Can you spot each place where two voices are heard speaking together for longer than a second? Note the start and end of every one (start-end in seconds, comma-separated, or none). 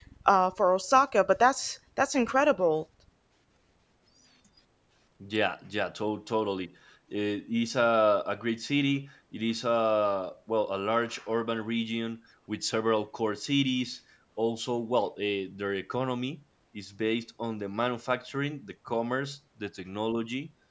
none